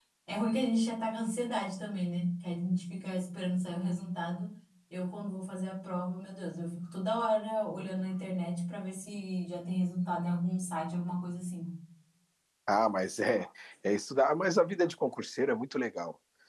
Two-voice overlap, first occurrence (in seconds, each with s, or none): none